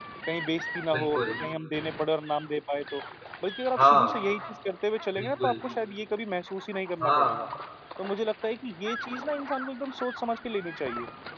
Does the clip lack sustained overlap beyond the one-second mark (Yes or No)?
Yes